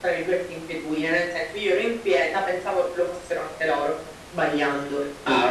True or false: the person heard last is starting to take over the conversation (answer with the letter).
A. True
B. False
A